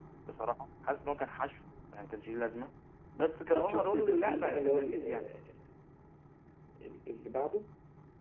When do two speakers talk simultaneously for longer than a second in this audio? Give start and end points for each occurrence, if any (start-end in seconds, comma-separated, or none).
3.5-5.2